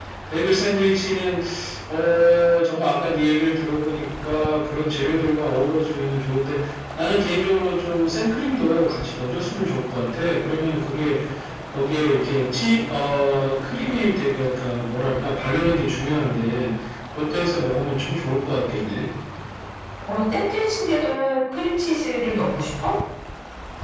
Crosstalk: none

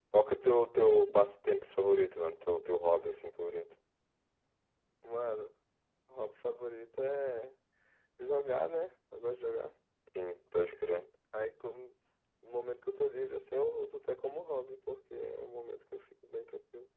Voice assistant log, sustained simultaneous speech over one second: none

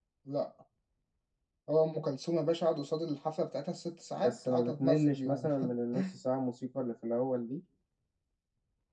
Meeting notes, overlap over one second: present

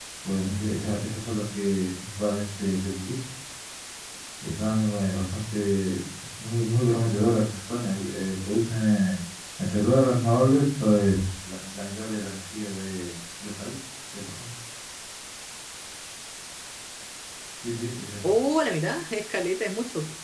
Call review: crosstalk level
none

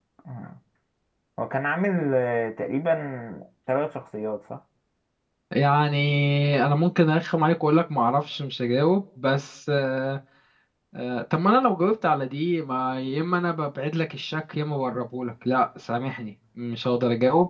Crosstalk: none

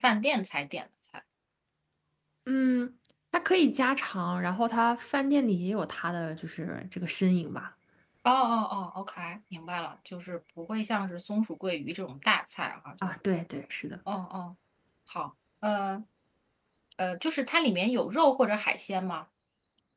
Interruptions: none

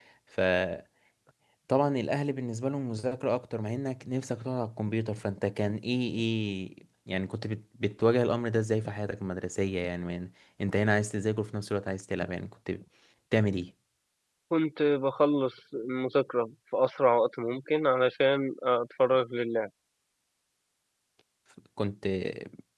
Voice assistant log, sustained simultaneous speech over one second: none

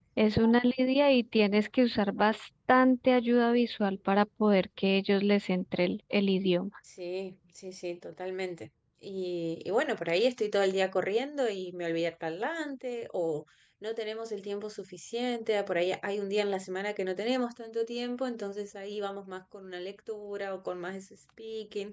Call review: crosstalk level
none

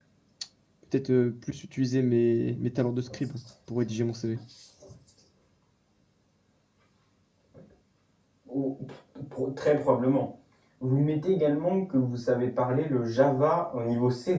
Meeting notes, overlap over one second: none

